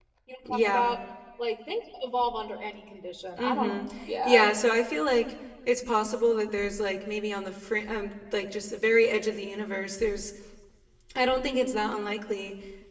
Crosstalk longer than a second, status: none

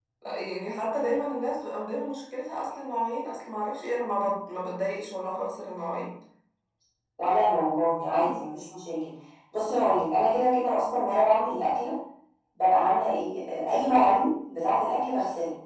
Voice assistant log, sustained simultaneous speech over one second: none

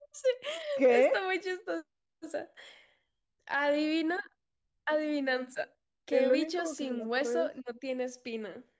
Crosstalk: present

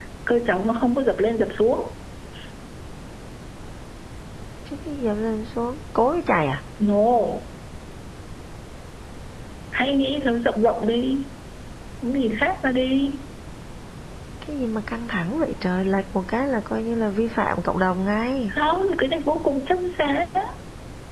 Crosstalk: none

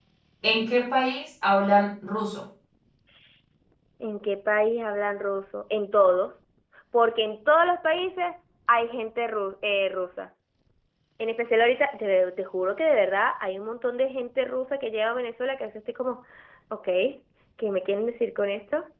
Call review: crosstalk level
none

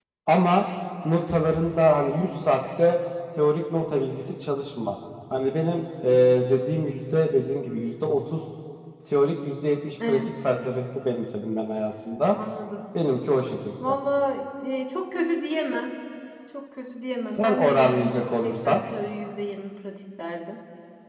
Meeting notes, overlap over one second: present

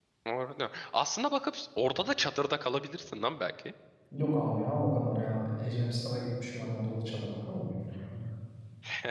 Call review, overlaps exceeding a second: none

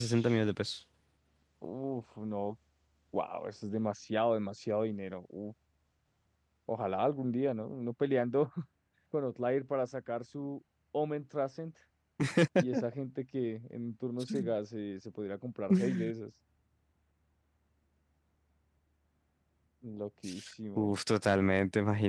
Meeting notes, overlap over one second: none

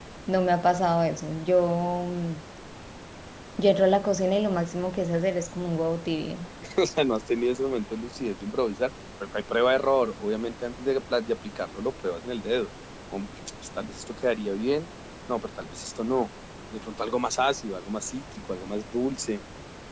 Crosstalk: none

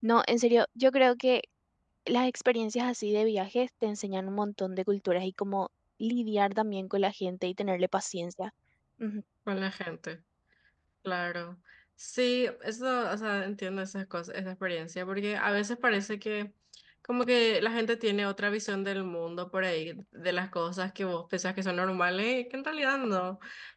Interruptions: none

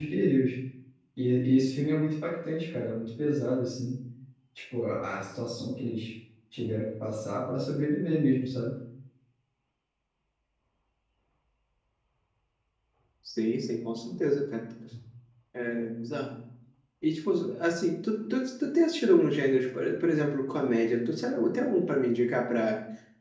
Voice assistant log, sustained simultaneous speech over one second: none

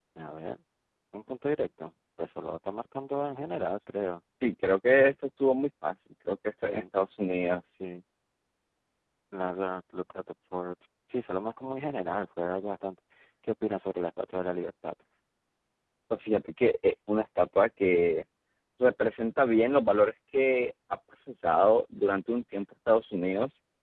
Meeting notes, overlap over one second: none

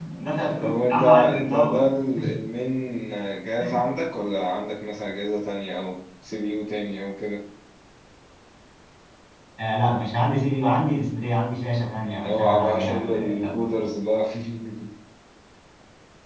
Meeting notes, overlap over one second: present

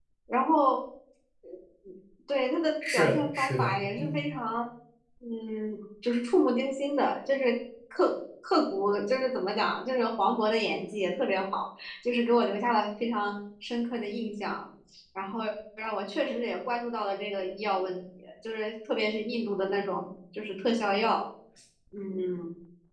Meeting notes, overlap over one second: present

